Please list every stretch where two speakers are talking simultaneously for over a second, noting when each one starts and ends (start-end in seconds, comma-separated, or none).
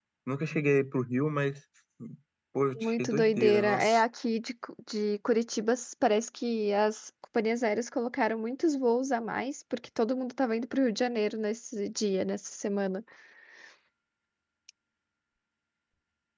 2.7-4.0